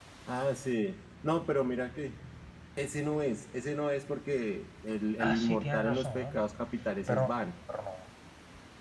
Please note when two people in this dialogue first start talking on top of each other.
5.2 s

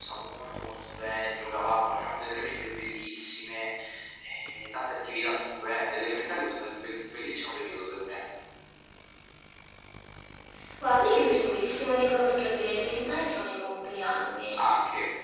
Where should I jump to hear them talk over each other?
none

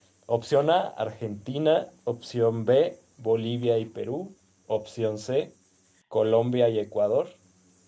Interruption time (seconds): none

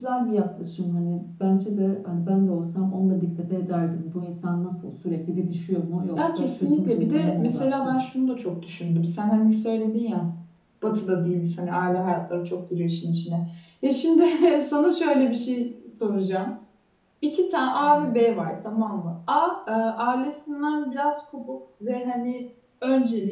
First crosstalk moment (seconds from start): 6.2 s

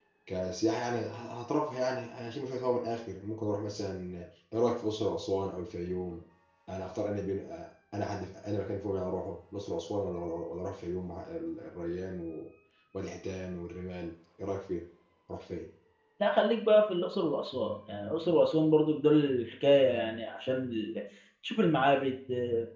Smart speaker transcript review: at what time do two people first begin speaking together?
none

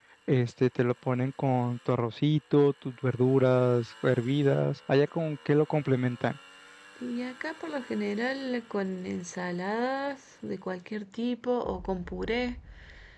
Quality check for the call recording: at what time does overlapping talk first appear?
none

